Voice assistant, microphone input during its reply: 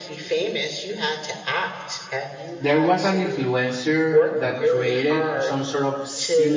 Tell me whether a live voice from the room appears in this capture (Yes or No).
Yes